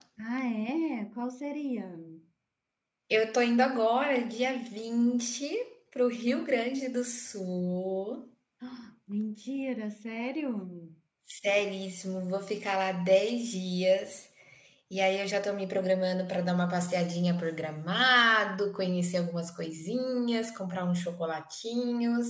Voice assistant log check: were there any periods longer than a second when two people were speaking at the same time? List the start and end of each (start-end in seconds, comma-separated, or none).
none